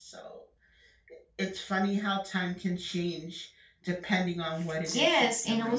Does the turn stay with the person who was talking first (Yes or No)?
No